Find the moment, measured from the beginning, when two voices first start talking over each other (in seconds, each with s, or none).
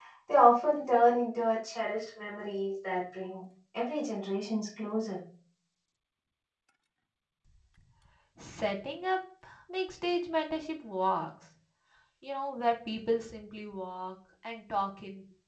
none